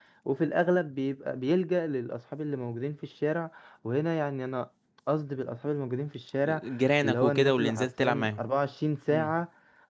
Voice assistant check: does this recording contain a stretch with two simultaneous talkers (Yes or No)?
Yes